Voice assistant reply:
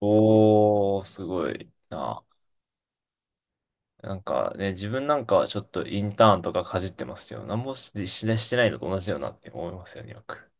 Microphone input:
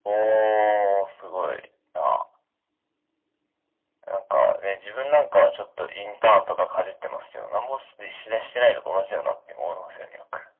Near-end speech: none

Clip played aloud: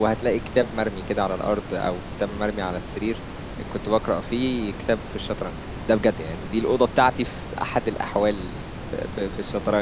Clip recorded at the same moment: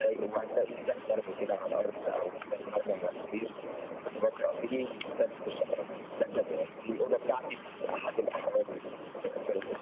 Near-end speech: none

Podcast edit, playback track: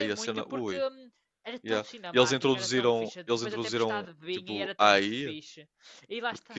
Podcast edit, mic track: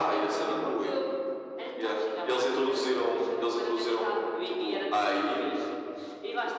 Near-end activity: none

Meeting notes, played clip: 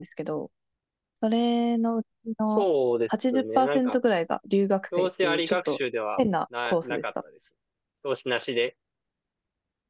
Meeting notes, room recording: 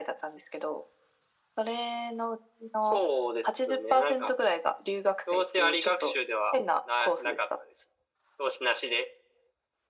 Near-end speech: none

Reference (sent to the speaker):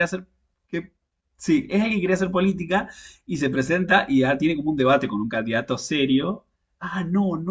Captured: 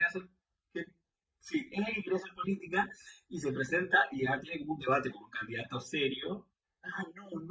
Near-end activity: none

